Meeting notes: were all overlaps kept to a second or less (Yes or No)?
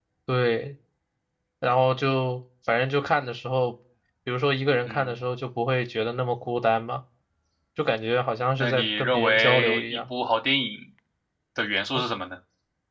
No